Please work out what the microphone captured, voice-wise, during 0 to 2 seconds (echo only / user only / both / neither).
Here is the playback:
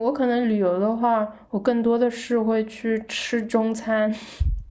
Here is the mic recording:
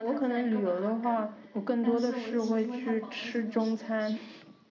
both